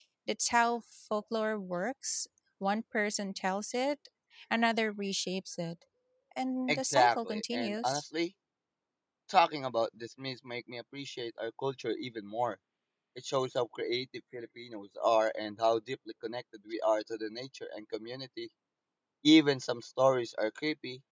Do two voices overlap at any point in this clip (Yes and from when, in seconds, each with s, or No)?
Yes, from 6.7 s